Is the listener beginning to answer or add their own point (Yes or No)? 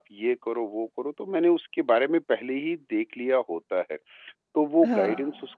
No